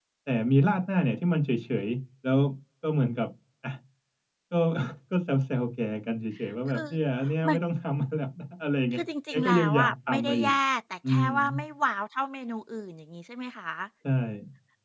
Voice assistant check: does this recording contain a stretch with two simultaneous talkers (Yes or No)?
Yes